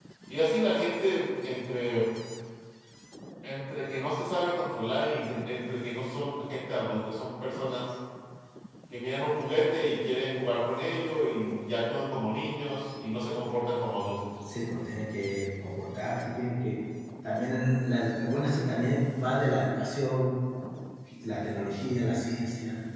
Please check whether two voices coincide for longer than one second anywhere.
No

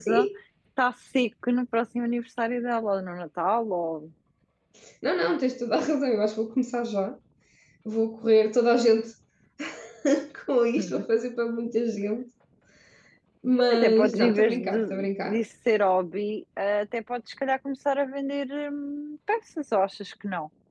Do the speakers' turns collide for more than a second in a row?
Yes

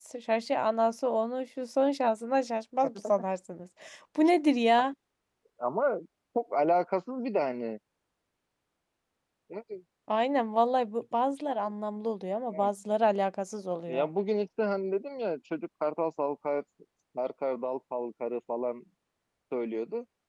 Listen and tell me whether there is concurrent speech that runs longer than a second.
No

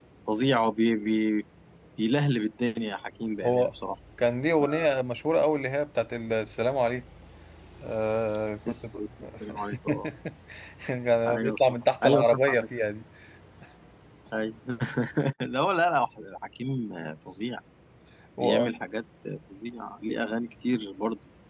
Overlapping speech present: Yes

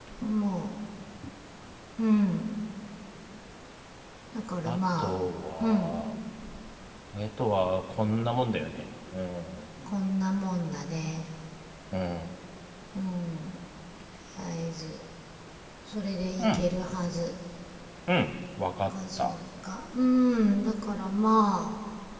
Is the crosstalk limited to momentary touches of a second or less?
Yes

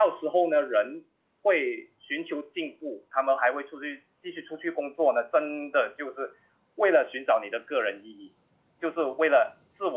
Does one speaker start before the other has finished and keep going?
No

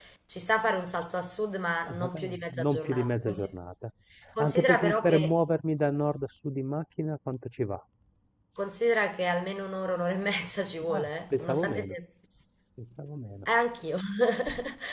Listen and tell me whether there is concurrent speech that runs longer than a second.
Yes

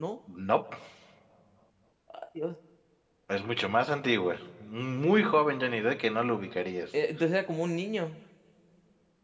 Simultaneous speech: No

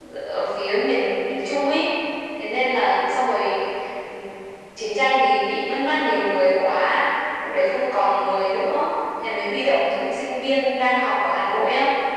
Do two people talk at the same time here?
No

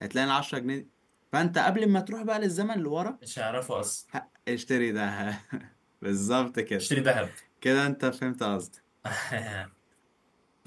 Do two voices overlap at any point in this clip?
No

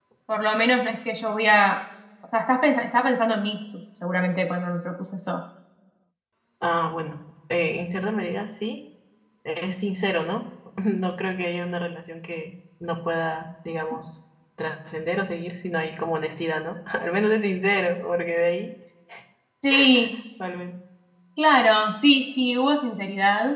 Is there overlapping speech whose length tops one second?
No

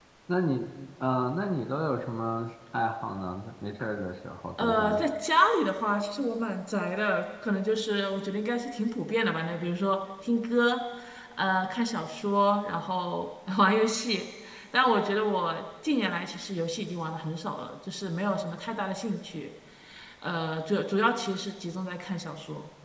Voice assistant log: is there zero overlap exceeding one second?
Yes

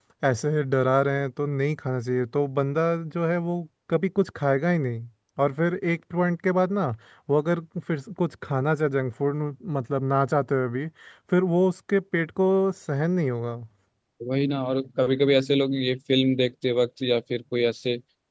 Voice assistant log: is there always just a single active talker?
Yes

